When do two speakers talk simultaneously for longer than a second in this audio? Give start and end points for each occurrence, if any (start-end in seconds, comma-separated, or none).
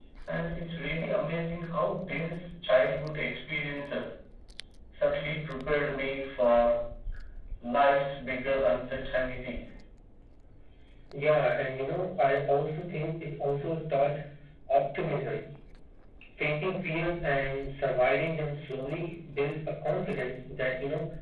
none